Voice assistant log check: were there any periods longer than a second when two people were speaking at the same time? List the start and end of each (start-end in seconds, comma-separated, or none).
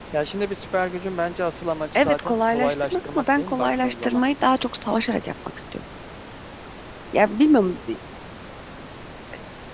1.9-4.2